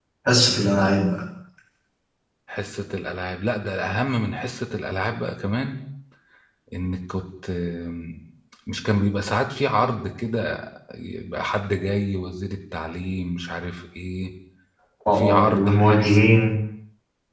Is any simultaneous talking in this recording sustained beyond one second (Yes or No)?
Yes